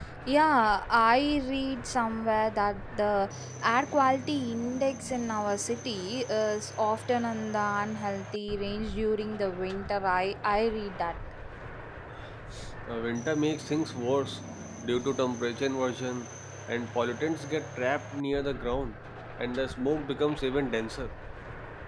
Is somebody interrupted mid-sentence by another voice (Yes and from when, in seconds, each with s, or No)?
No